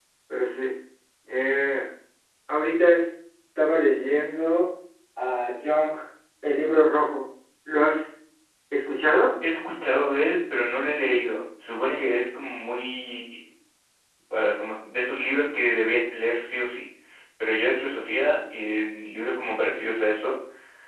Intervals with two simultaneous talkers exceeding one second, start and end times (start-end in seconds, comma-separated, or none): none